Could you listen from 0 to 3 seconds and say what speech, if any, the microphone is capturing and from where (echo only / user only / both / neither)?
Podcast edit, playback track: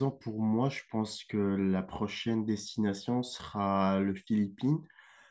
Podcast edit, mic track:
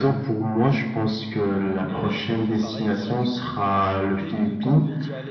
both